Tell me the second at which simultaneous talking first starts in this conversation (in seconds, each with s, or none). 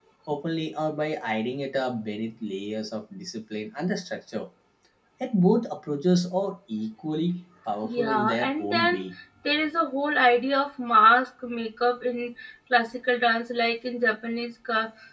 7.8 s